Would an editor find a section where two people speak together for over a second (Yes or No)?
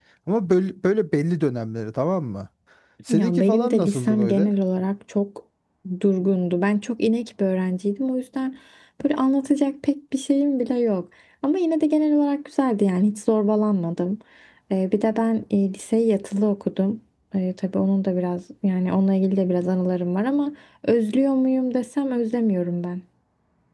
Yes